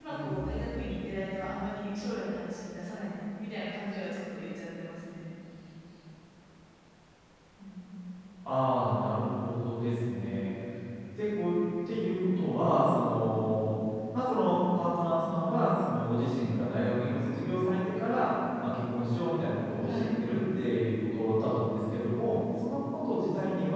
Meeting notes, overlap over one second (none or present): none